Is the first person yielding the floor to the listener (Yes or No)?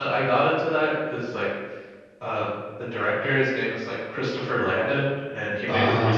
No